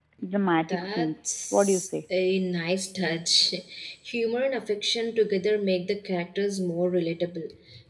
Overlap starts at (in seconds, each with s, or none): 0.7 s